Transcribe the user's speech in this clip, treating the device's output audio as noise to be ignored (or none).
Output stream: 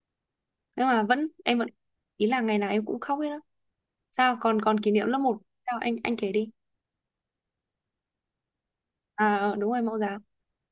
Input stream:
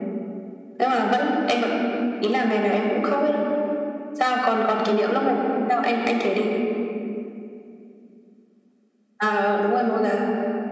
none